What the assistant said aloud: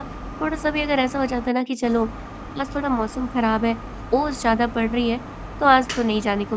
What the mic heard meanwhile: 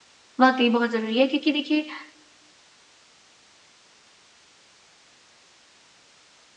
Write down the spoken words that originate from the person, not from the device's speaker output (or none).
वाक़ई बहुत ज़रूरी है क्योंकि देखिए